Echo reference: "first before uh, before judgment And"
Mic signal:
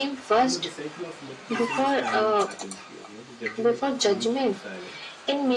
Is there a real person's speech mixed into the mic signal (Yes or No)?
Yes